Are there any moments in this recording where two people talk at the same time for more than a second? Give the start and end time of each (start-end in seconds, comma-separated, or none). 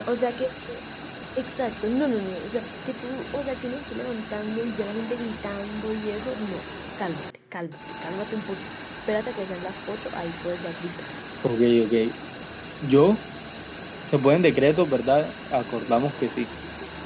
none